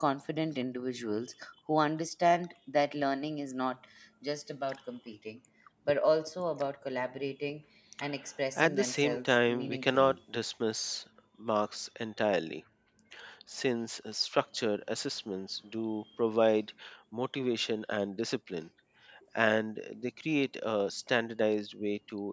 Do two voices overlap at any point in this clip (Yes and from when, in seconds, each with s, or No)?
Yes, from 8.6 s